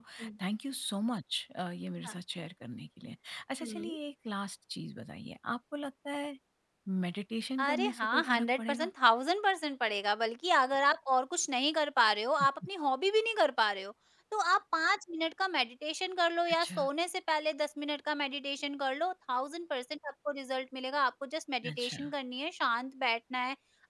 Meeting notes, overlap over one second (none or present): present